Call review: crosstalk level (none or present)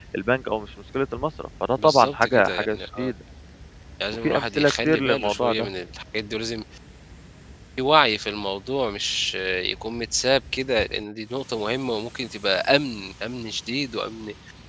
present